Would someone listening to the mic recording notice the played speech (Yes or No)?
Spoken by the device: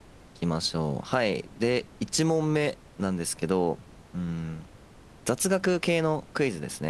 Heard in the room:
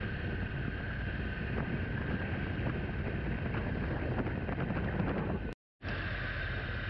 No